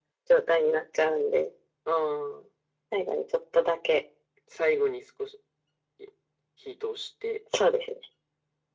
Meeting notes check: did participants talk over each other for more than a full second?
No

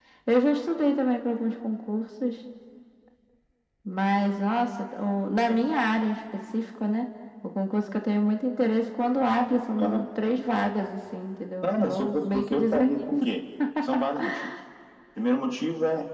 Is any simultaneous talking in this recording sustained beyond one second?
Yes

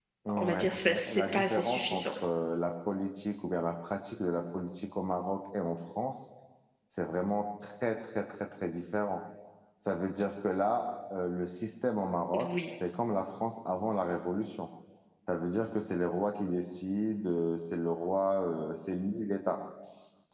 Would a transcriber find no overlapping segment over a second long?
No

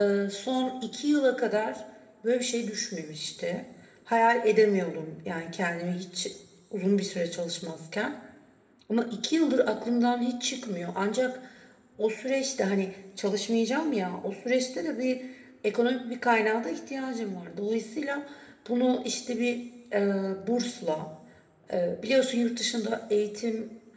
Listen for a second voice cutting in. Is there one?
No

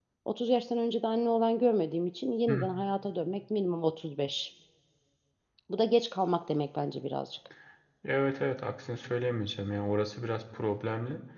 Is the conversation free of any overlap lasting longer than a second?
Yes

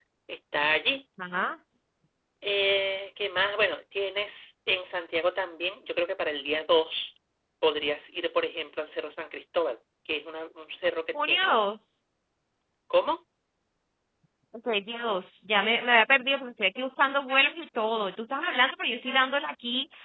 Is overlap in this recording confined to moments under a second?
Yes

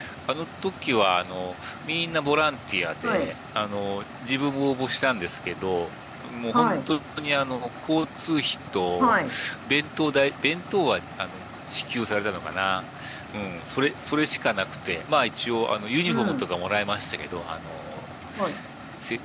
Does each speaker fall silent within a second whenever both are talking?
Yes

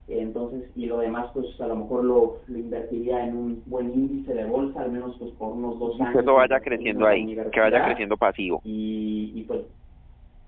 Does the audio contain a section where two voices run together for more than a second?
Yes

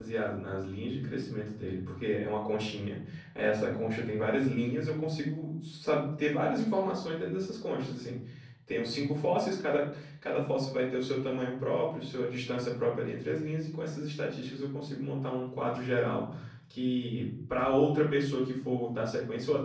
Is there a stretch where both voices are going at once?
No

